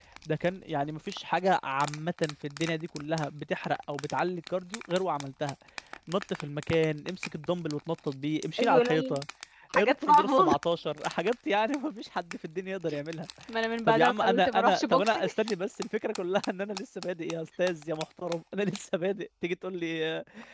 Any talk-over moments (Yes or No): Yes